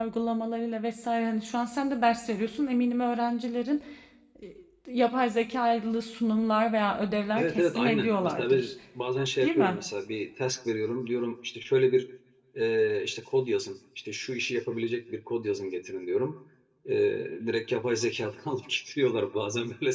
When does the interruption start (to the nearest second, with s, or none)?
7 s